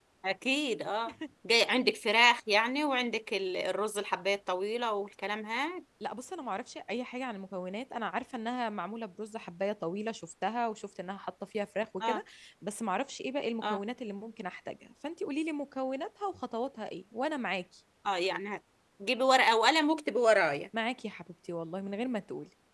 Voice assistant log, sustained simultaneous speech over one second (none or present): none